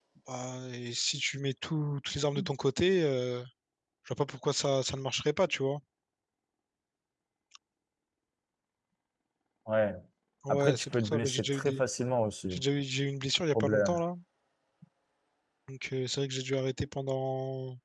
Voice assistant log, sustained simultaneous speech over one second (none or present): present